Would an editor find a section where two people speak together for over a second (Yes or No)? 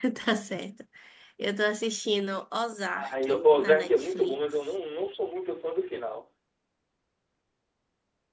Yes